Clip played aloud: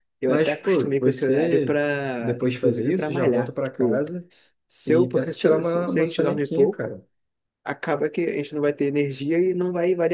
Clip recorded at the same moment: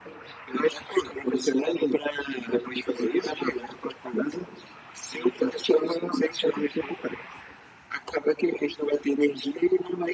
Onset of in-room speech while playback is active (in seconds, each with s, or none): none